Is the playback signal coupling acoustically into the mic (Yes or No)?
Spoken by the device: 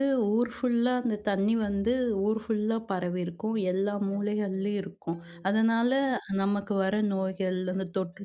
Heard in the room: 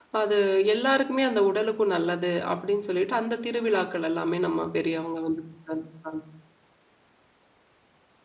No